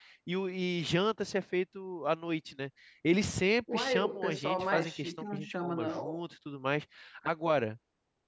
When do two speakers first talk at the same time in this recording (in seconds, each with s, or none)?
3.7 s